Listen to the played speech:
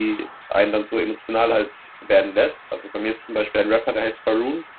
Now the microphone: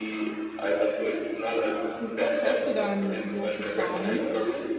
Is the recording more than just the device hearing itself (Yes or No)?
Yes